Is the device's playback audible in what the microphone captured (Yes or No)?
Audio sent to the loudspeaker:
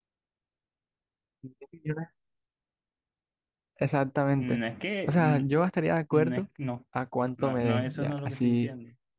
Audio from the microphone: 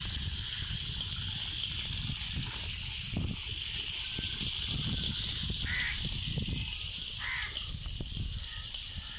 No